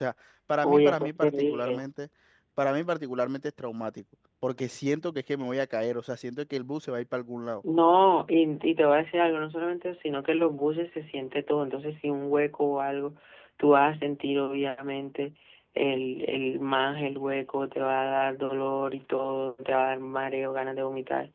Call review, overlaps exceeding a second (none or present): present